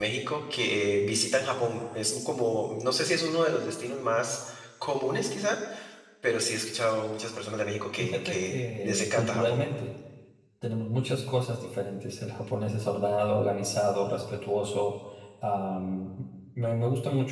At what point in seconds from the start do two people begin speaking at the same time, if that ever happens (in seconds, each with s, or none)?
8.0 s